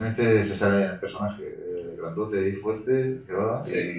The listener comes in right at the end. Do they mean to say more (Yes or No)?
No